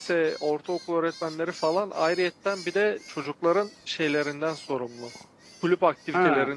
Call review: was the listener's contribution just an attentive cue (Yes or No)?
Yes